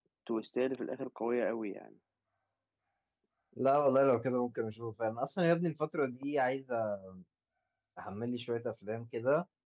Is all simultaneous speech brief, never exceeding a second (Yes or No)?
Yes